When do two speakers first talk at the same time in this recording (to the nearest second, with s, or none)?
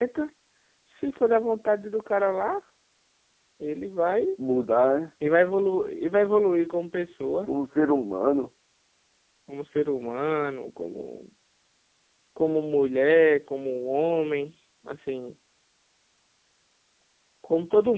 none